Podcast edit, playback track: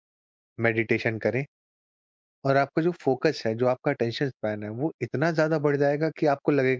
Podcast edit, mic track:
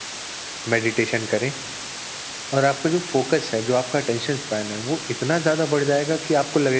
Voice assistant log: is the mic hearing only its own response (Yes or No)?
Yes